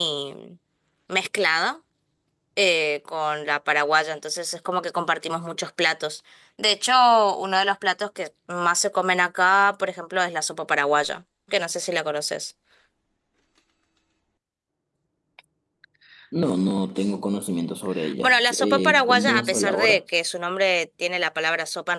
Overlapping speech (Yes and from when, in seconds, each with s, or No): Yes, from 18.2 s